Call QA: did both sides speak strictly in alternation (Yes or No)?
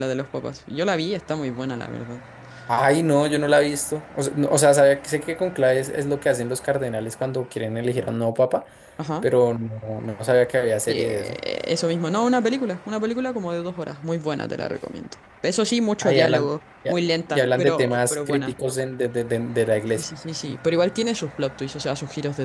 No